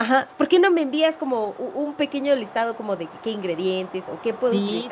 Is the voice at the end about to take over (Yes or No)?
Yes